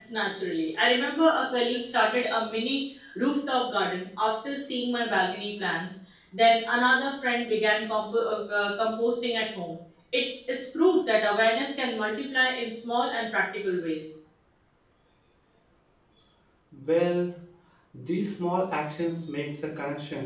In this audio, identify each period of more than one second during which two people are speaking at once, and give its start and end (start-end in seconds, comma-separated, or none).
none